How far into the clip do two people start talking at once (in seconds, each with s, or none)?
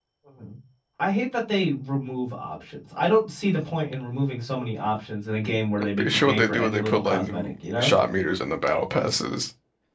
6.0 s